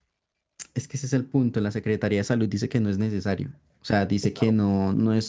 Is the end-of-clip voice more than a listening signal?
No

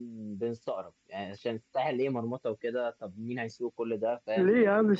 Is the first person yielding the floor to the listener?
Yes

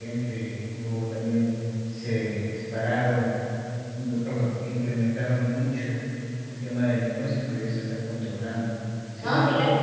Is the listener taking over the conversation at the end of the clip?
No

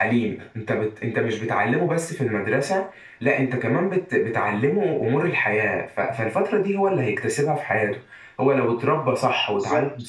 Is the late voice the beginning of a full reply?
No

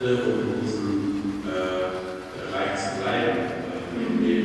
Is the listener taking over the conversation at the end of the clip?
No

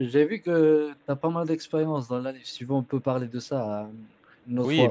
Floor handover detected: Yes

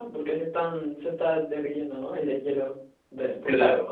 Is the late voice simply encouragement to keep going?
No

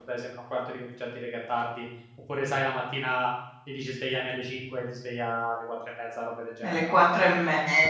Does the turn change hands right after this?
Yes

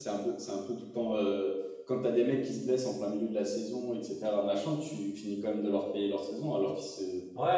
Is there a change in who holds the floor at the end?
Yes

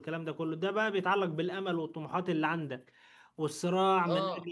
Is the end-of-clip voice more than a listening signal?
No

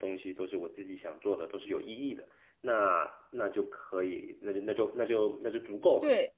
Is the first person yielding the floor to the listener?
Yes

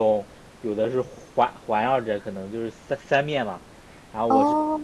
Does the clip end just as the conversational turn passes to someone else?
No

